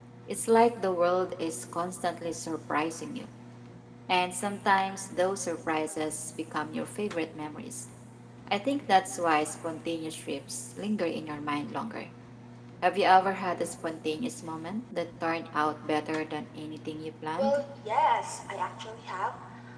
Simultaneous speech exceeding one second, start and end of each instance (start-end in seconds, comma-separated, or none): none